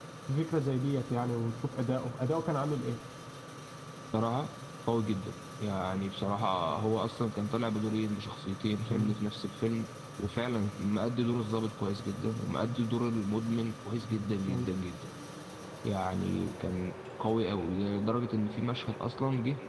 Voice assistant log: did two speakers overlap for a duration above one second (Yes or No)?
No